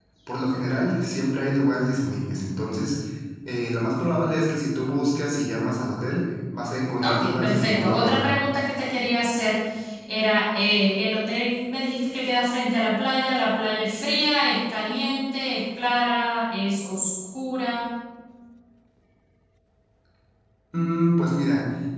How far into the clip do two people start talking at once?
7.0 s

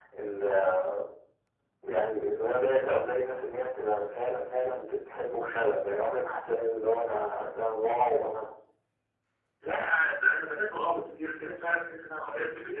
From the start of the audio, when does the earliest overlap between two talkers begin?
none

